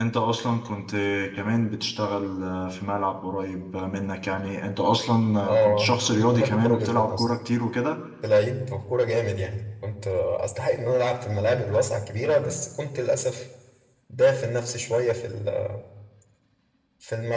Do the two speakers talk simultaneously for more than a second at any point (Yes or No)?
Yes